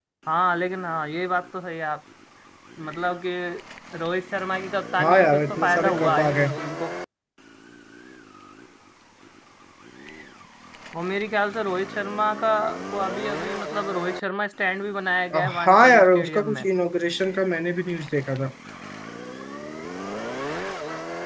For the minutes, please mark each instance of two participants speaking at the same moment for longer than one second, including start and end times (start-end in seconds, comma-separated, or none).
5.0-6.5, 15.3-16.7